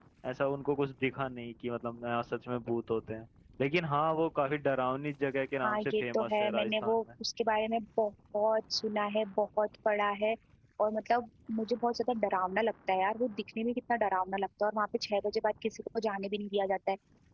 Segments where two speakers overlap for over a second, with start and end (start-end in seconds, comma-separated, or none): 5.6-7.0